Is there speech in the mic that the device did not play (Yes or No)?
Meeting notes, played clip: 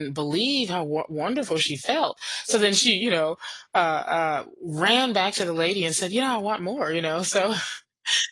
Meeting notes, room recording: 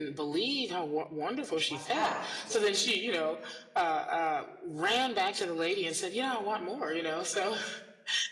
Yes